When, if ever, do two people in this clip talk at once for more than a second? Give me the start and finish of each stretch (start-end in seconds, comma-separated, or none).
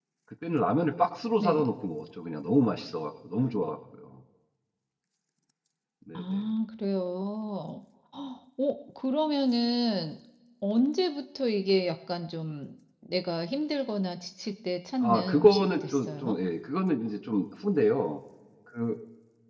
15.0-16.4